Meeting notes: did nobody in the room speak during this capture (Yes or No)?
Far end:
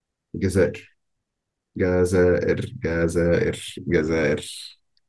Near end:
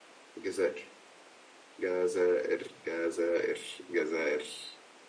Yes